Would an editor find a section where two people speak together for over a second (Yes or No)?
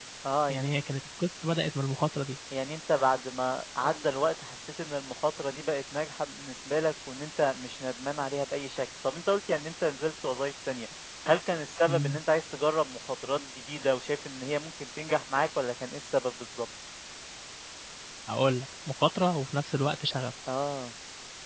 No